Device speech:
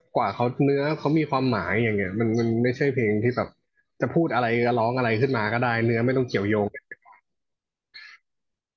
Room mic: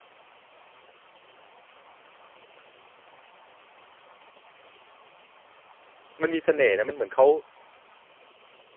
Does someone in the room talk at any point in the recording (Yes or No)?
Yes